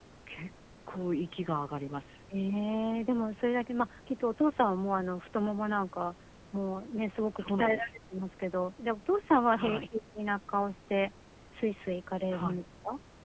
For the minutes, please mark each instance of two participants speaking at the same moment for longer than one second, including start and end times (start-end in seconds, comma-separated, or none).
none